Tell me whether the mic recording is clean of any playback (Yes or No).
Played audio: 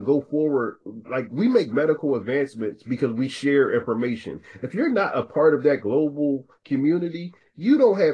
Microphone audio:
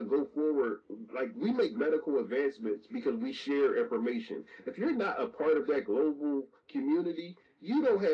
No